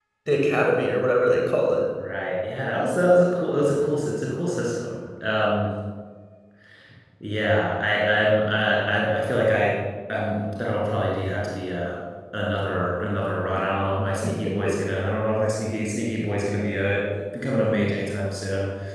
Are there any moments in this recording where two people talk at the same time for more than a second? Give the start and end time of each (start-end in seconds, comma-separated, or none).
none